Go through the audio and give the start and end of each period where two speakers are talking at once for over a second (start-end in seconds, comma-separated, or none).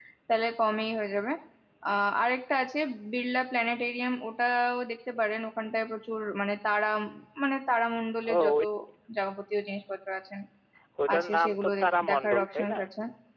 11.1-12.8